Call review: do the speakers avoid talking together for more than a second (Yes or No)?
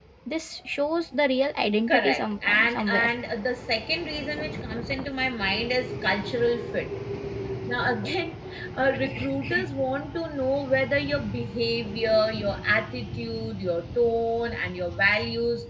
No